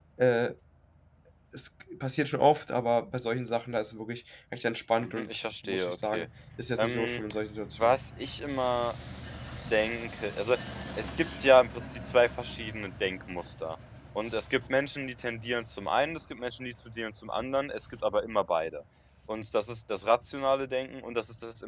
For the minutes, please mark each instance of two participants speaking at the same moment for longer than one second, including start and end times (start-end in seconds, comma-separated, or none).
5.0-6.2